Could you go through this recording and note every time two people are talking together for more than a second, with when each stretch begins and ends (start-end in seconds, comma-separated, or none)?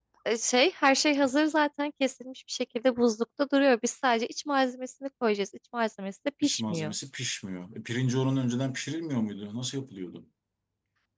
none